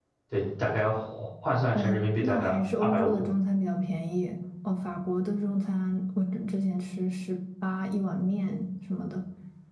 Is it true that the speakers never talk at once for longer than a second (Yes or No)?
No